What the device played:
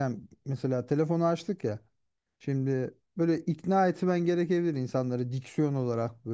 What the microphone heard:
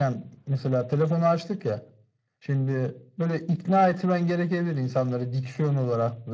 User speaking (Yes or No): No